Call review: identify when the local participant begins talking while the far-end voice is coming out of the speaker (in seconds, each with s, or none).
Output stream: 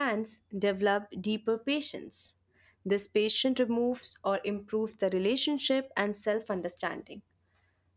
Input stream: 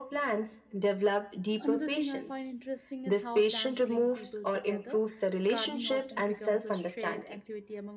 1.6 s